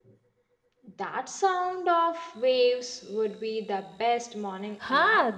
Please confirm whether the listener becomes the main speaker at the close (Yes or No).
Yes